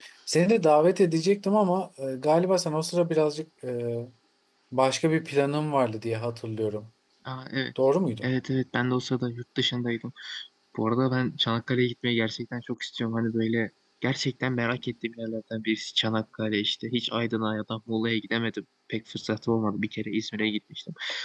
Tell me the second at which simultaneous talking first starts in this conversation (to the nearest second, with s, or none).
none